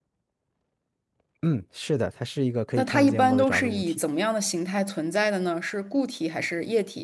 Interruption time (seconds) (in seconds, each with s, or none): 2.8 s